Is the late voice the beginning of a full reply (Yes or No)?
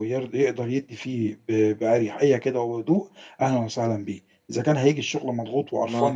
No